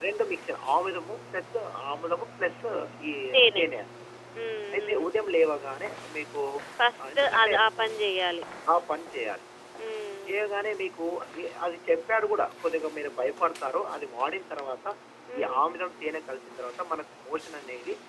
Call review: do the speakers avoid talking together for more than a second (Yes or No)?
Yes